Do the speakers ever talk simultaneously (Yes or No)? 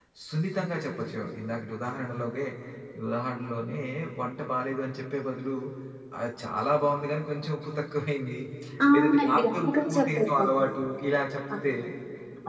Yes